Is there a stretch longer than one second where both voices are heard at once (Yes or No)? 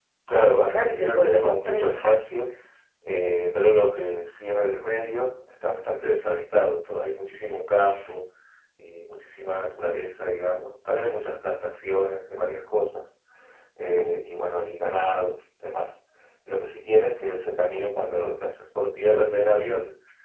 Yes